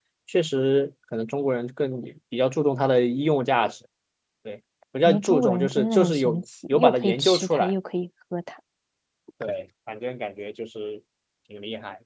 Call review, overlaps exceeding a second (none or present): present